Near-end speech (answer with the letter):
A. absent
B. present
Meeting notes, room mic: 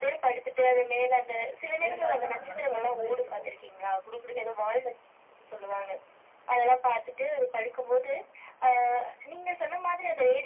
B